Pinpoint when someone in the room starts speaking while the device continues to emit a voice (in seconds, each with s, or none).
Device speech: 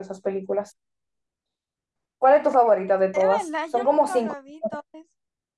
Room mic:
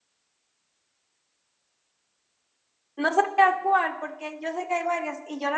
2.9 s